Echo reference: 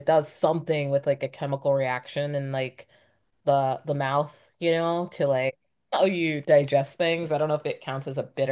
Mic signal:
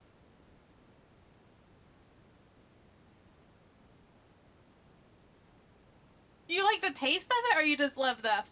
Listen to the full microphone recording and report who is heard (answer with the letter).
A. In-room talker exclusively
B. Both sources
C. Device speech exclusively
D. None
A